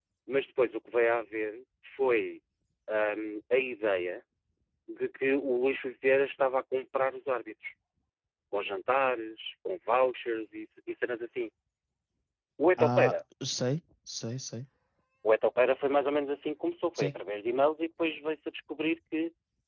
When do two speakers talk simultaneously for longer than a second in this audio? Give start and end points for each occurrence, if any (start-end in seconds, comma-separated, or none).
none